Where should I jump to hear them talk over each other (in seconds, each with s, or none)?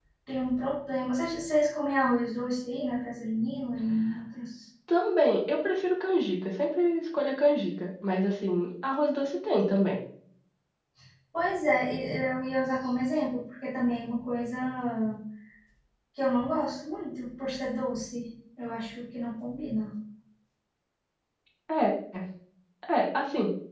none